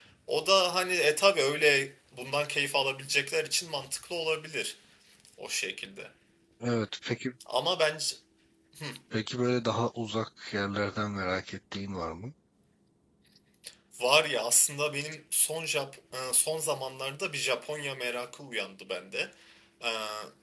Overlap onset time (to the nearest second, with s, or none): none